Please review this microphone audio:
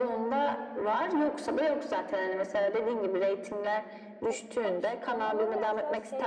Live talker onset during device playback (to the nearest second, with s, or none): 4 s